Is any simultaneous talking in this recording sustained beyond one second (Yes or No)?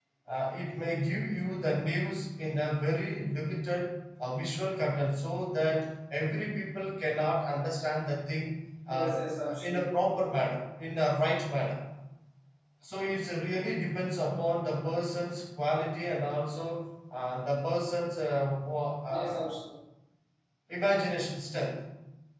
No